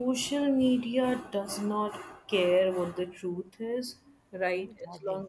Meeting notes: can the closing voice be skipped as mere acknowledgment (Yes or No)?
Yes